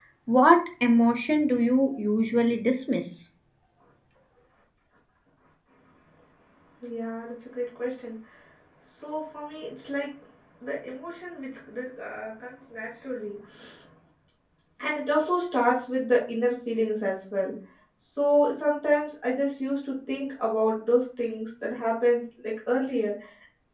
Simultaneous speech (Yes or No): No